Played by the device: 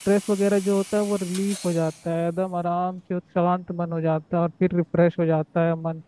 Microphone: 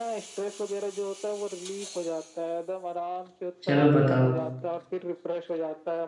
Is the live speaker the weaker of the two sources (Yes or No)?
No